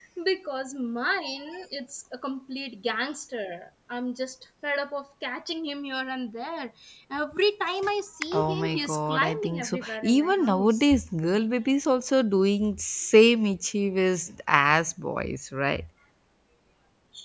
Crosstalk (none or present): present